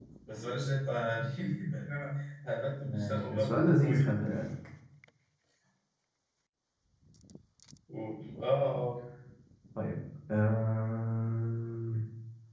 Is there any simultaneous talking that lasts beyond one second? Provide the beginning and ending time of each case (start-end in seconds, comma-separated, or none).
2.8-4.3